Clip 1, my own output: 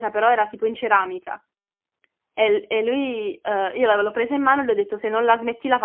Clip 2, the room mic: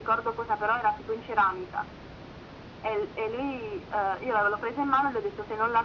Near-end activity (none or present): none